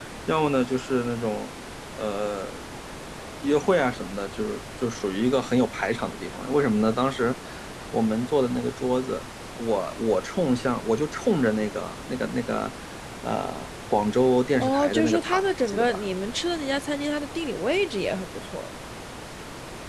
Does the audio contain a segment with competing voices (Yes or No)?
Yes